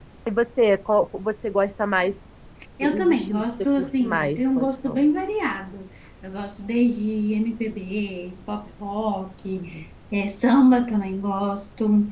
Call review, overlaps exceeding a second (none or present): present